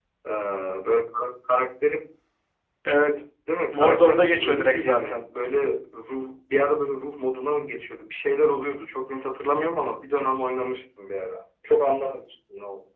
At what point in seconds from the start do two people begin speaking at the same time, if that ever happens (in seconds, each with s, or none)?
3.7 s